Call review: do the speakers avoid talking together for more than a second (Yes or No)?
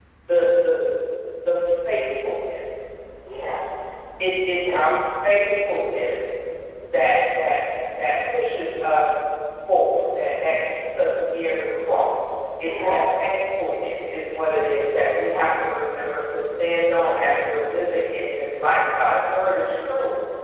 Yes